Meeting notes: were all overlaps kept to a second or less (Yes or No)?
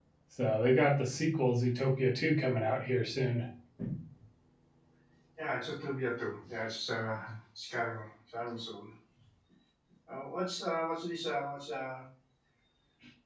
Yes